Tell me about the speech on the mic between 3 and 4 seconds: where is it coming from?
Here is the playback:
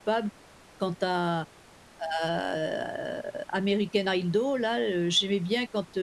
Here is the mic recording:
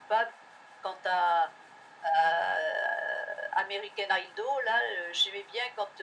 echo only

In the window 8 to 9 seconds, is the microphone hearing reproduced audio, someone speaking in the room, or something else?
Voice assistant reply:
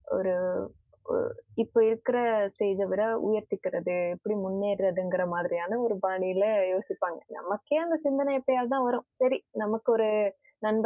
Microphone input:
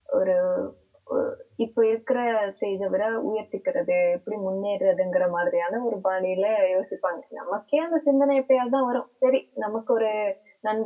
echo only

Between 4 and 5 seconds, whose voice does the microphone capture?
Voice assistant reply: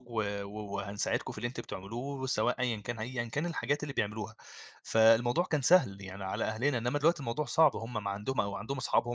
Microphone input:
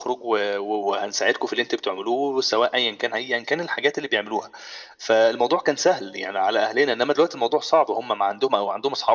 echo only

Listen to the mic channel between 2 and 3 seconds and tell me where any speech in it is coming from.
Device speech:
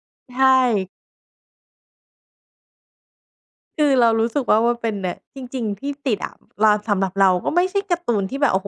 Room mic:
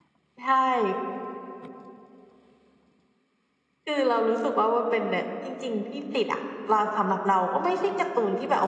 neither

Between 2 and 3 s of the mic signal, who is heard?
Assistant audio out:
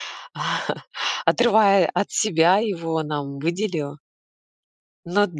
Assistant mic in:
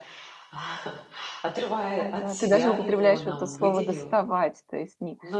both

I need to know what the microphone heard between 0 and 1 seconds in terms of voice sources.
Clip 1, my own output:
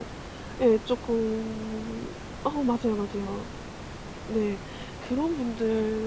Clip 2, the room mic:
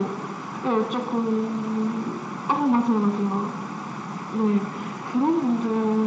echo only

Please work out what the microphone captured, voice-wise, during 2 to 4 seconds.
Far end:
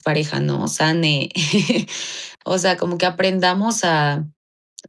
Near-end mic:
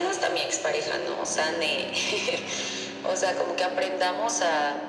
echo only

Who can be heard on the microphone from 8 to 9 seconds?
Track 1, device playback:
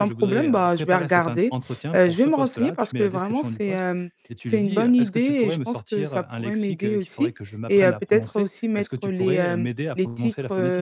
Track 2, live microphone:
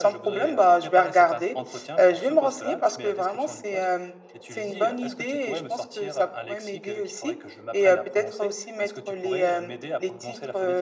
echo only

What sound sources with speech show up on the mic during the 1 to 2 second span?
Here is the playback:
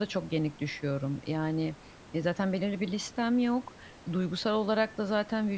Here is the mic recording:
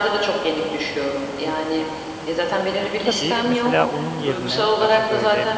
echo only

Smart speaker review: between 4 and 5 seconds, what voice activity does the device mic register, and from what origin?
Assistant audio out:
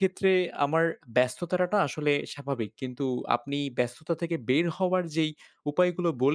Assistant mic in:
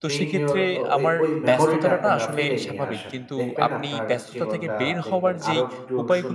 both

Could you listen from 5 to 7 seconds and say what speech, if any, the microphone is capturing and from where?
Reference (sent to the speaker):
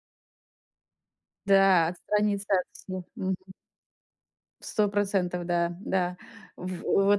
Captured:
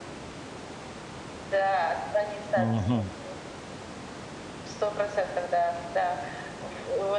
echo only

